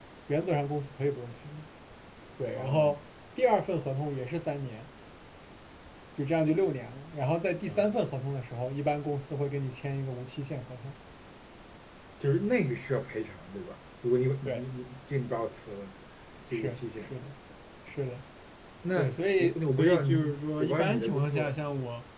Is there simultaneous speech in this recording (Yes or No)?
Yes